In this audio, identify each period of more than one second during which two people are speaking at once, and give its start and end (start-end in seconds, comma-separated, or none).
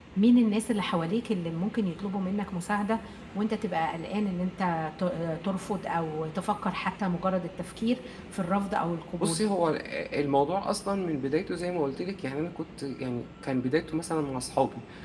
none